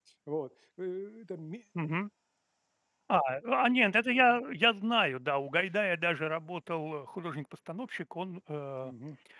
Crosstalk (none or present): none